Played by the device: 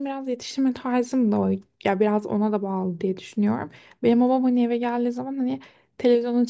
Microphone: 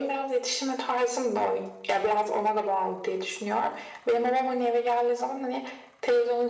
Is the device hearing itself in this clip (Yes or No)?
Yes